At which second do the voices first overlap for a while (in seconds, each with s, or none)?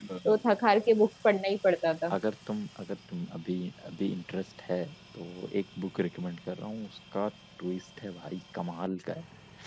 none